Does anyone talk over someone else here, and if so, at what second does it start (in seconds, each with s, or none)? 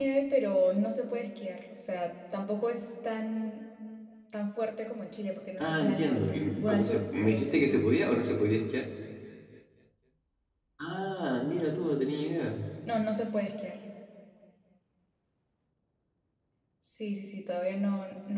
5.6 s